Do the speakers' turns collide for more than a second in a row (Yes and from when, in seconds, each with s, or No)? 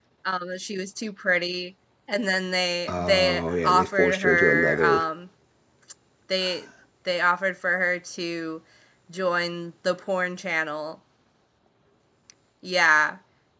Yes, from 2.9 s